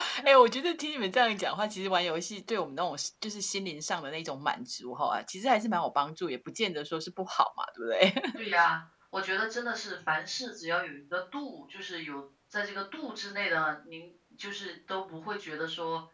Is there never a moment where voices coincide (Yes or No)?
Yes